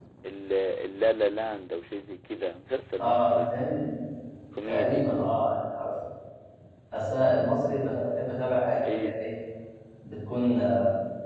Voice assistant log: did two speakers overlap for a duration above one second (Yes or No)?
No